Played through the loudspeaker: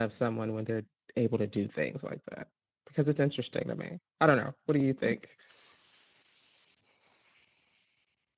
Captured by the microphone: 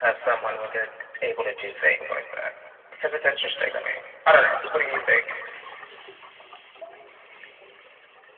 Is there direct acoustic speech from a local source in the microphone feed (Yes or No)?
No